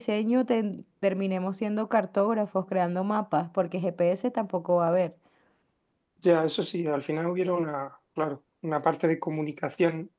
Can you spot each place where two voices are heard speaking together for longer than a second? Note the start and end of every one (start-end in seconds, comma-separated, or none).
none